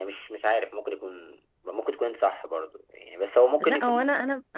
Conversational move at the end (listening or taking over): taking over